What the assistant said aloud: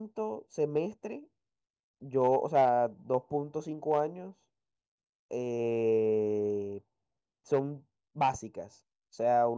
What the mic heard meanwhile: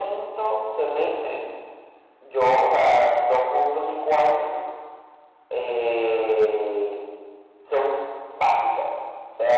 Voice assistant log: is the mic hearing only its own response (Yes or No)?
Yes